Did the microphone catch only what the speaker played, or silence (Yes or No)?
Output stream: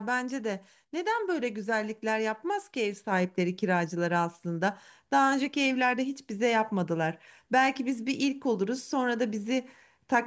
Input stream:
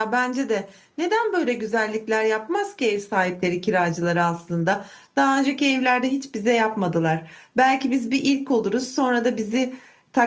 Yes